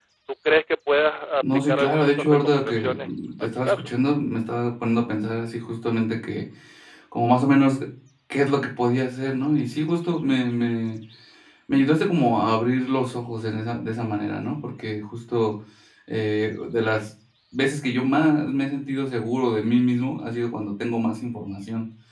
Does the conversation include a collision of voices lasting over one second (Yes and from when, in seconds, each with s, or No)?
Yes, from 1.4 s